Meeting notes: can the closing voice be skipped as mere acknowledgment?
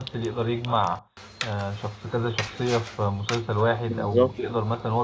Yes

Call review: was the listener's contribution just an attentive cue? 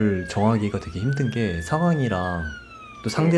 Yes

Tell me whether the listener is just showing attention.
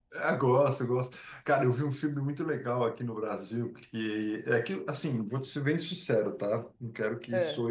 Yes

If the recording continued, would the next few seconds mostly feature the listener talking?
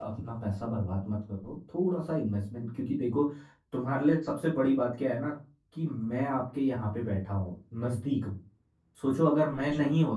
No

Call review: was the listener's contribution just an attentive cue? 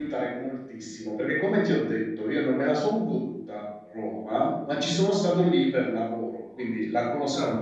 Yes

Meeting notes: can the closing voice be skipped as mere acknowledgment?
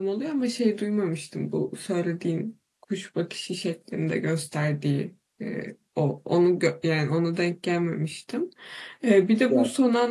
Yes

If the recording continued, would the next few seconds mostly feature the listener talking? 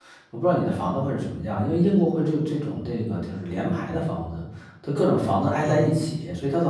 No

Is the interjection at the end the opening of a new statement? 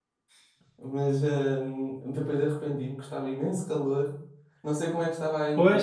Yes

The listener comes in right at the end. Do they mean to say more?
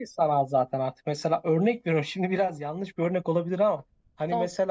No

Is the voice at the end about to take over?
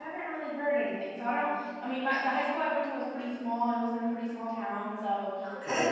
No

